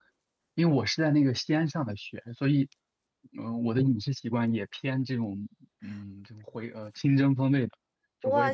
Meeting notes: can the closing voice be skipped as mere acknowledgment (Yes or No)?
No